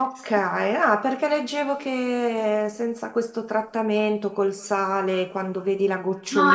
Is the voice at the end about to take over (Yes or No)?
Yes